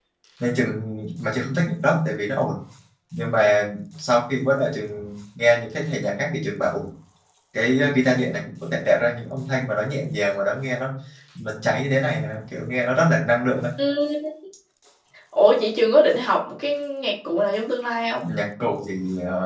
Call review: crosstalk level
none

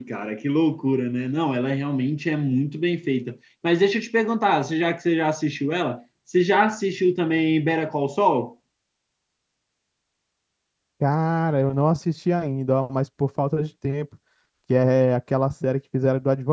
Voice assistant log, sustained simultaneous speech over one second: none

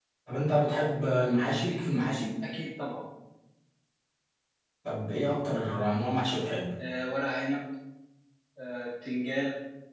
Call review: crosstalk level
none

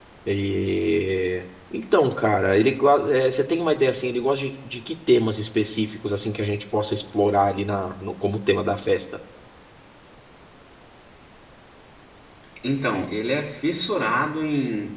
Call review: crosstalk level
none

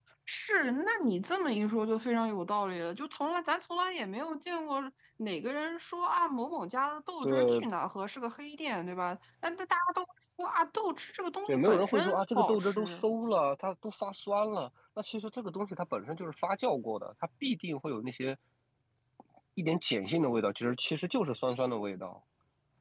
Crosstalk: present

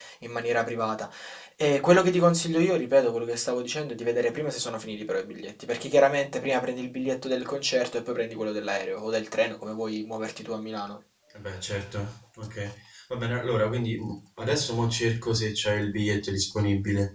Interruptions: none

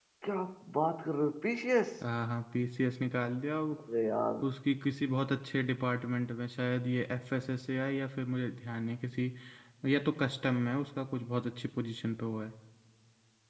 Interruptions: none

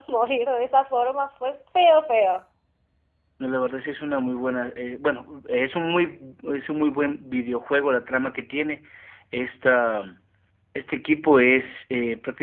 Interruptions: none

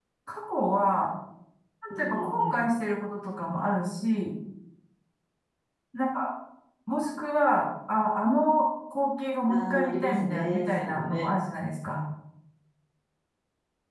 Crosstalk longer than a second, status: present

